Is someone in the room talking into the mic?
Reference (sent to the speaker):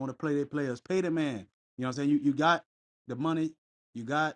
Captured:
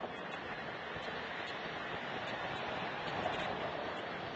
No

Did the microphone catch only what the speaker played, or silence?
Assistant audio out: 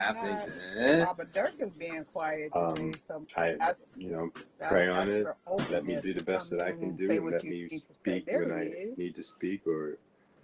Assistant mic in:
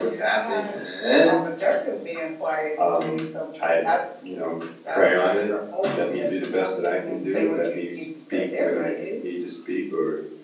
Yes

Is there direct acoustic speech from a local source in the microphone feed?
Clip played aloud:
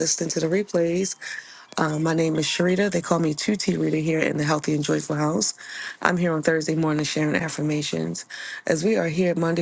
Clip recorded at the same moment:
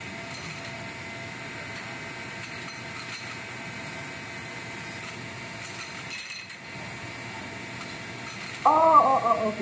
Yes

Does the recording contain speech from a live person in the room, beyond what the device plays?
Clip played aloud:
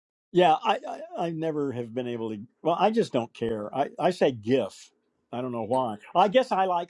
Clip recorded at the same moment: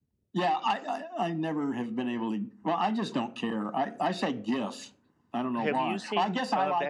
Yes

